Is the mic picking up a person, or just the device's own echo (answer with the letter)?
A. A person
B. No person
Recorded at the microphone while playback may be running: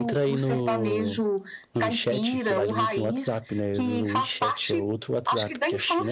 A